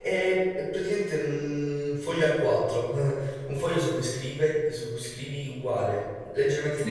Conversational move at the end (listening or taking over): listening